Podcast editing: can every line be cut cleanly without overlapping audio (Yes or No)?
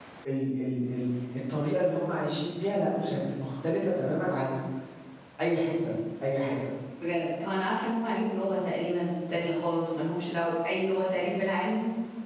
Yes